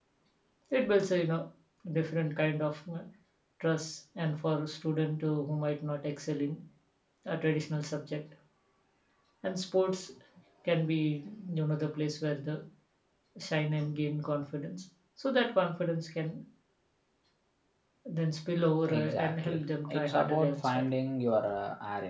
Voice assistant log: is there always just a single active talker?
No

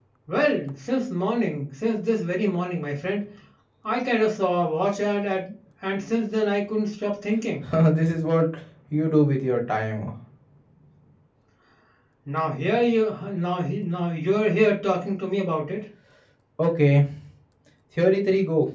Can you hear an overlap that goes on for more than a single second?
No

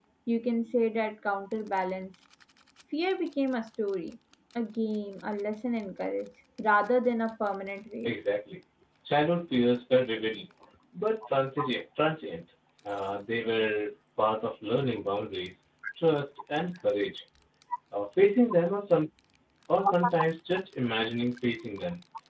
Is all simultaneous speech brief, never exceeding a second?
Yes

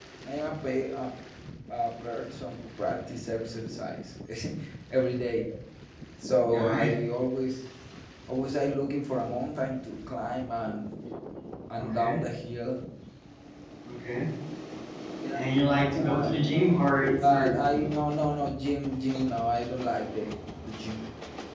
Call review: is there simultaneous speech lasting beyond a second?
Yes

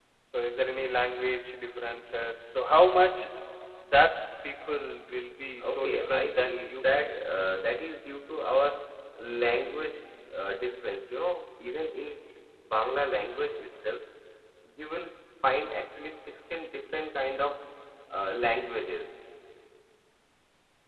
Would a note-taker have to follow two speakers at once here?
Yes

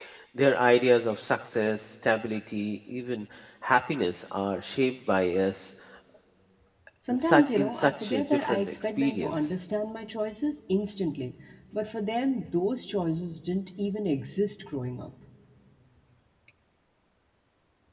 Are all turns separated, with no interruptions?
No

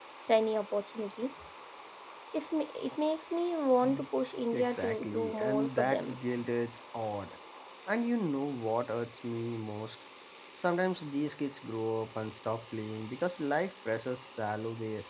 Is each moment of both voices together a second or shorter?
No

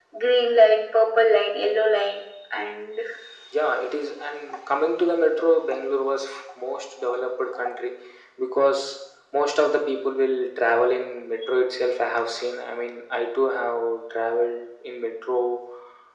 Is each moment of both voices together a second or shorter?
Yes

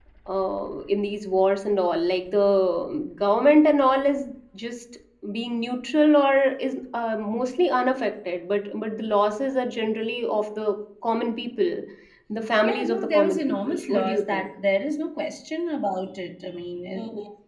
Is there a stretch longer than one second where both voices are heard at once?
Yes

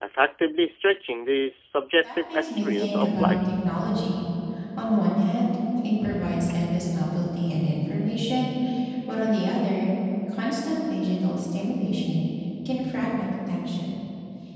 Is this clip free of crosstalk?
No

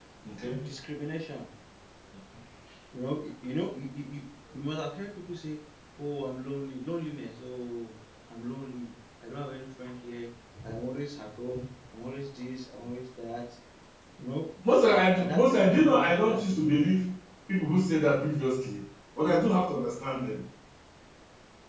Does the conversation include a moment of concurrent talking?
Yes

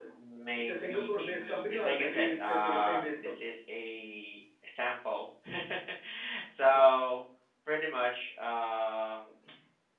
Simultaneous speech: Yes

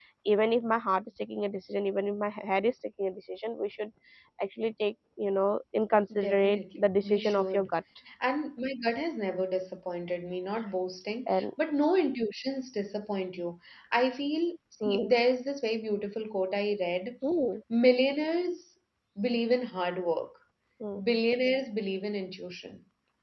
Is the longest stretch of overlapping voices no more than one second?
No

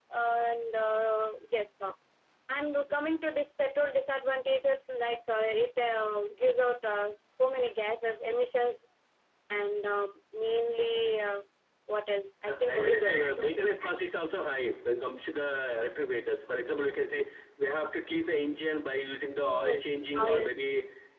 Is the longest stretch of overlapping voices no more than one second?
No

